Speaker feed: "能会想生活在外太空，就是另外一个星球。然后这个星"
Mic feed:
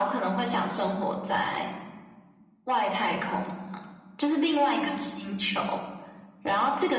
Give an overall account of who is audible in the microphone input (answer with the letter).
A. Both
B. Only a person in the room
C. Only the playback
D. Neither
C